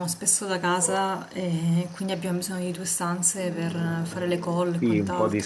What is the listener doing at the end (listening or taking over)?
taking over